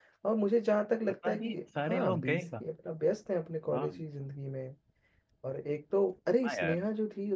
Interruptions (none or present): present